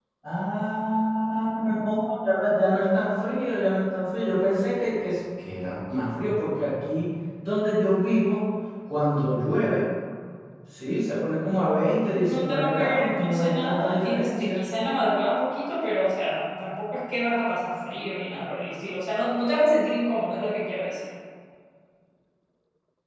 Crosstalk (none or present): present